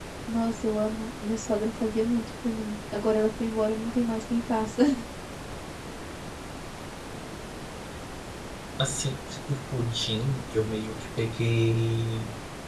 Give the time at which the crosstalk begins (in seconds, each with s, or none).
none